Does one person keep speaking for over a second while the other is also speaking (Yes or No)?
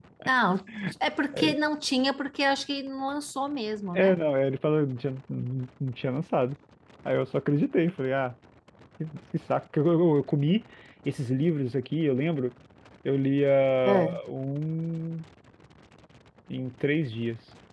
No